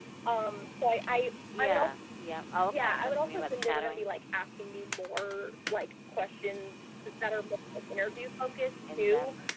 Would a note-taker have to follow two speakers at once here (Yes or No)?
Yes